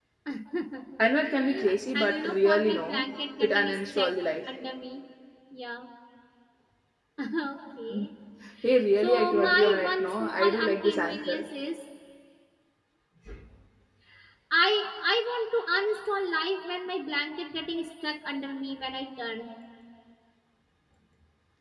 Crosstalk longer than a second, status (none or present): present